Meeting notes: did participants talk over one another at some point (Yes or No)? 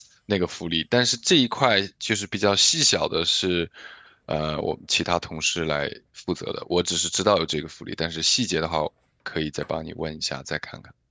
No